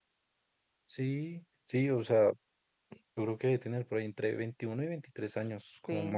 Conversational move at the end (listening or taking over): taking over